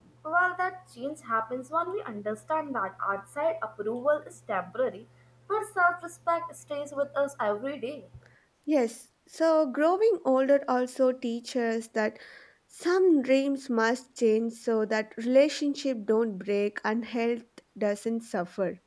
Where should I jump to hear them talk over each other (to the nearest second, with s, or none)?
none